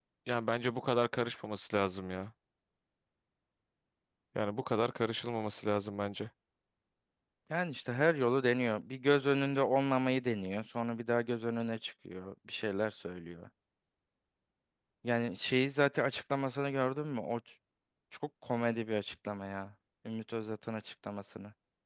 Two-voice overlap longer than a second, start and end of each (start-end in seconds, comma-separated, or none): none